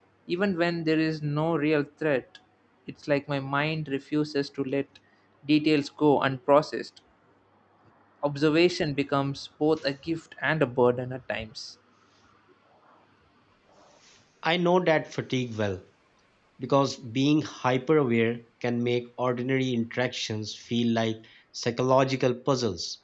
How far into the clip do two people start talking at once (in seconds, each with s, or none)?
none